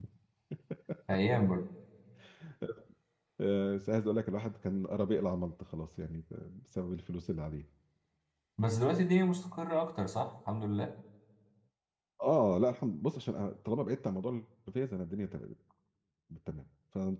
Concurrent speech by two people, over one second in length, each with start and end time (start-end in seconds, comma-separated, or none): none